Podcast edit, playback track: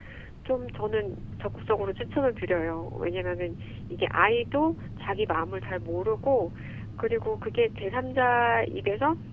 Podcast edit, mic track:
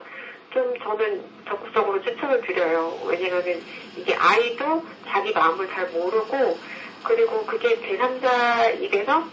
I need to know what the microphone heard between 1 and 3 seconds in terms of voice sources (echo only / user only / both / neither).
echo only